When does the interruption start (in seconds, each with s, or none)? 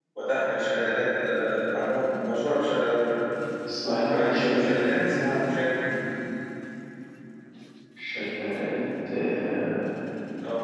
3.8 s